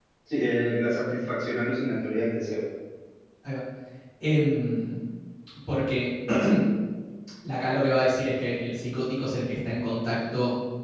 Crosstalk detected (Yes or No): No